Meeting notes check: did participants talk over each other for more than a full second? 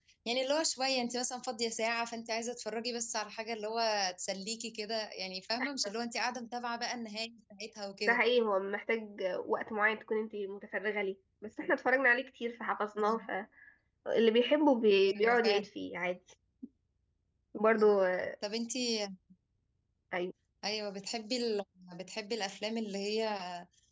No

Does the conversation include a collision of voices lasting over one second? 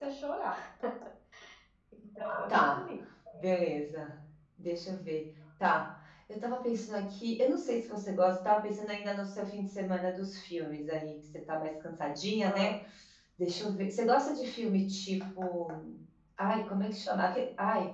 No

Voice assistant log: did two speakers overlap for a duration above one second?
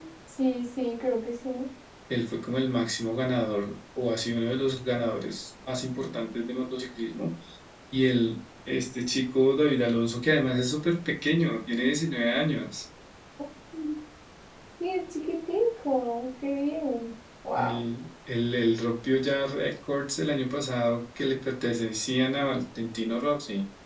No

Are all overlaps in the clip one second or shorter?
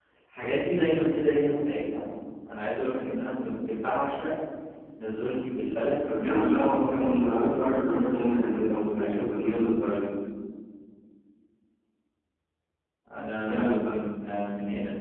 No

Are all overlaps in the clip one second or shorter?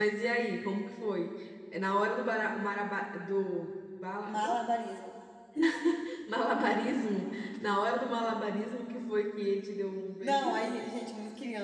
Yes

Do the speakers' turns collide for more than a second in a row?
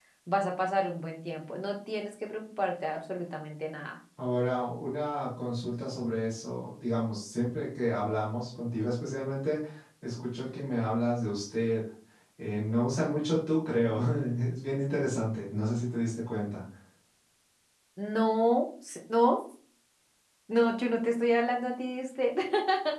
No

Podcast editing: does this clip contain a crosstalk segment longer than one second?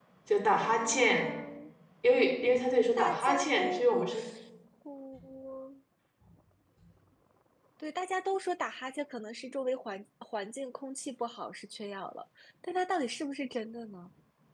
Yes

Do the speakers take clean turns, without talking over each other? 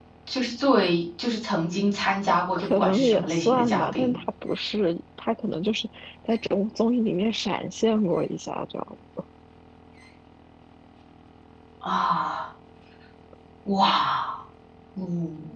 No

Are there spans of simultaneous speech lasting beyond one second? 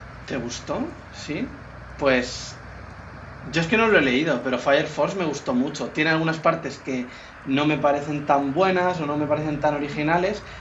No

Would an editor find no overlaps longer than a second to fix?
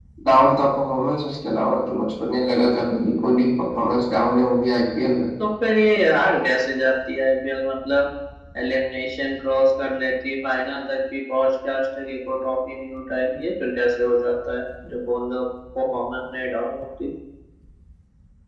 Yes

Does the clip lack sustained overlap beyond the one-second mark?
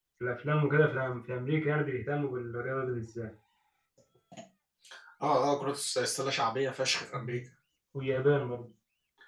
Yes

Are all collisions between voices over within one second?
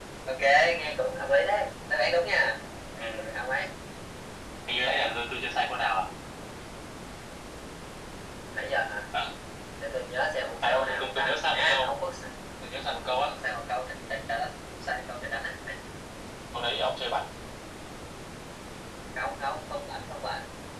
No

